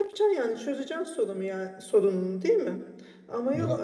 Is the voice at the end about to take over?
No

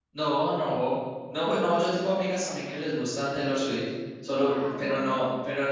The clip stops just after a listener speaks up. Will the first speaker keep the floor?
Yes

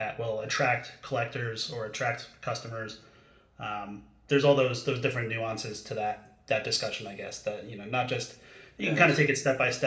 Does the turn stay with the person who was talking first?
Yes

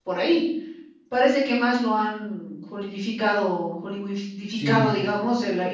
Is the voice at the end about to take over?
No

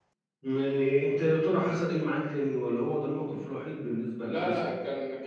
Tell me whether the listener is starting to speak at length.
Yes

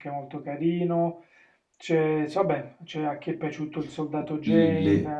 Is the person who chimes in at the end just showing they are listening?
No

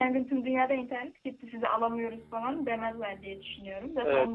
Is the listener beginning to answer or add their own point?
Yes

